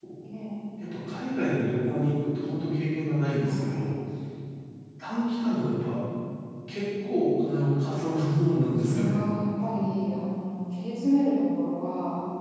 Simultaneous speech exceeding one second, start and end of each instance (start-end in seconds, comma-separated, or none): none